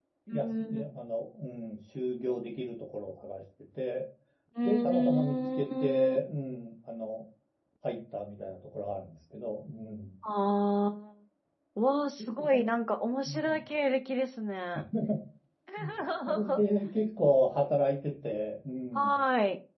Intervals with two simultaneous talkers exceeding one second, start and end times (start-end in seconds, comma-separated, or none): 4.6-6.2